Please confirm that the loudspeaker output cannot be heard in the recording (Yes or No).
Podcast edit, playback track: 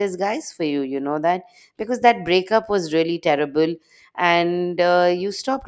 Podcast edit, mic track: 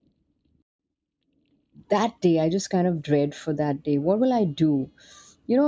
Yes